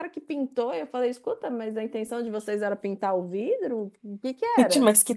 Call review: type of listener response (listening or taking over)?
taking over